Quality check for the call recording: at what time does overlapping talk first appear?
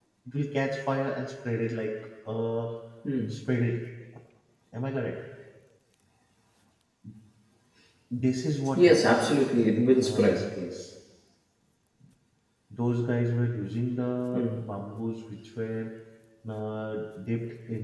8.8 s

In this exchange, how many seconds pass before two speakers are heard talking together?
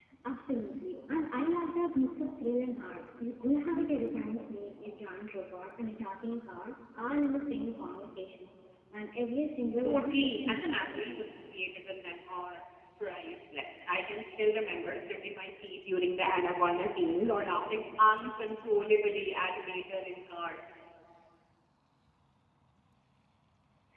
9.8 s

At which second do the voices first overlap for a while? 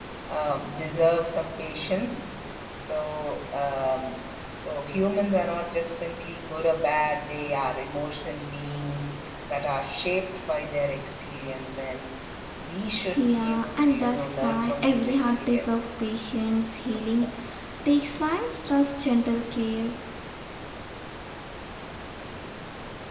13.2 s

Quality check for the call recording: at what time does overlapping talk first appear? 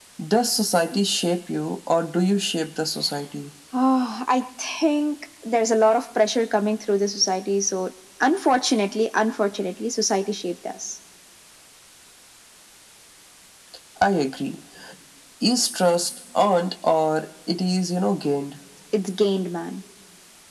none

